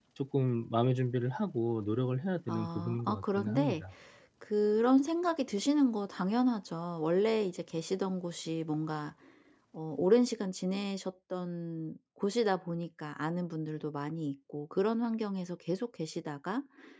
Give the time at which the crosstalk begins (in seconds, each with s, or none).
2.5 s